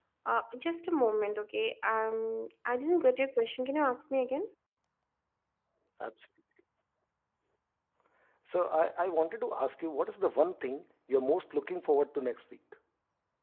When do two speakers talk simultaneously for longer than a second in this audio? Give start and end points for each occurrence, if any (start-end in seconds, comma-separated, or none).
none